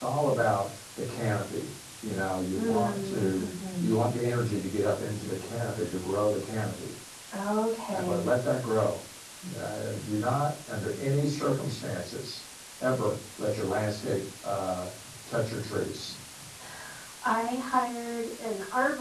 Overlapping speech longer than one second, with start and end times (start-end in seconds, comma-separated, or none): 2.5-3.9